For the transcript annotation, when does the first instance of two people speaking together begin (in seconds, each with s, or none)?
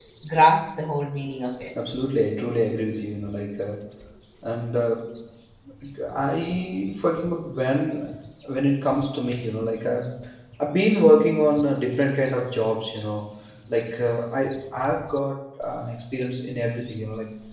none